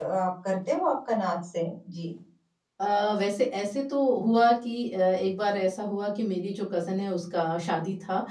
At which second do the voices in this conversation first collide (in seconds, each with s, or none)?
none